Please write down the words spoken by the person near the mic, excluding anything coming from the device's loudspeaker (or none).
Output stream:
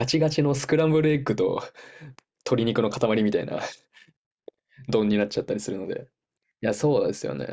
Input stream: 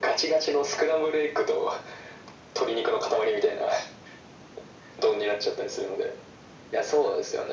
none